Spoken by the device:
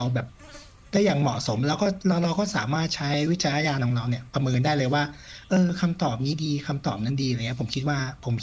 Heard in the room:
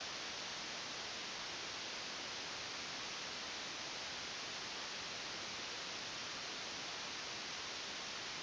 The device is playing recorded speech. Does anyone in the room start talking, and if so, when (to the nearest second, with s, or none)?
none